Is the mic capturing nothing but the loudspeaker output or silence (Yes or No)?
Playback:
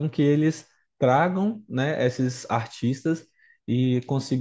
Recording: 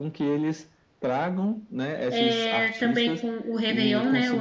No